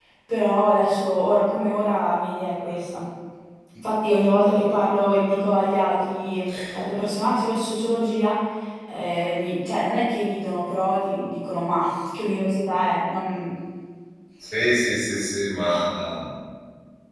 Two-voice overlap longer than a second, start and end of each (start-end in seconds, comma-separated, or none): none